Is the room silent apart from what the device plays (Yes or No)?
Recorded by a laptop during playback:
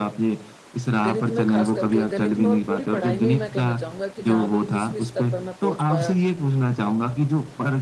No